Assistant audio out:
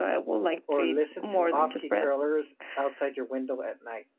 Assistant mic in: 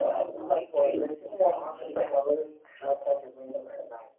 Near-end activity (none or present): none